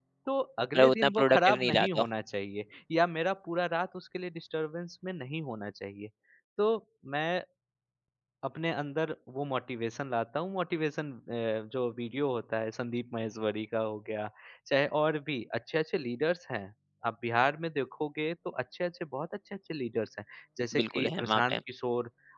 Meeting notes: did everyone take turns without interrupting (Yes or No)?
No